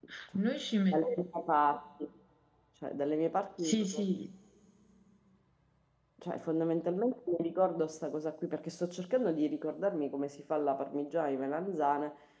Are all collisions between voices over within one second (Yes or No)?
Yes